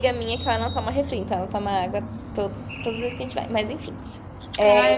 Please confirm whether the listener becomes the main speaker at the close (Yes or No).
Yes